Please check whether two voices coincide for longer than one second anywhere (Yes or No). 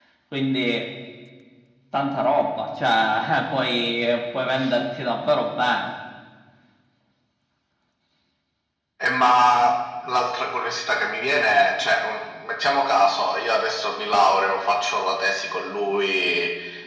No